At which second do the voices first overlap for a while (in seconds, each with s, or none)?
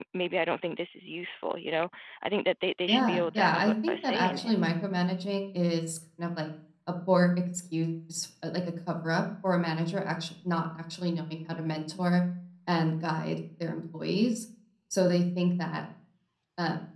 2.9 s